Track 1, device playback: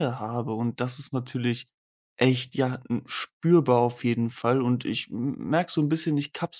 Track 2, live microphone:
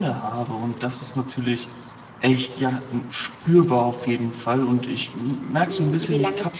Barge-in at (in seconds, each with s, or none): 5.6 s